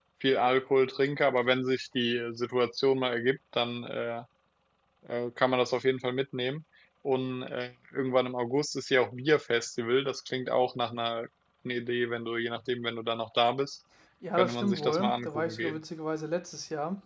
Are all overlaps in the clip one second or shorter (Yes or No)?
No